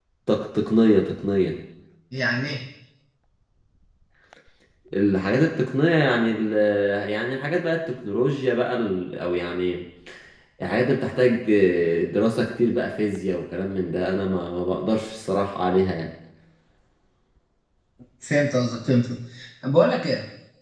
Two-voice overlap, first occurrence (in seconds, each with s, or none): none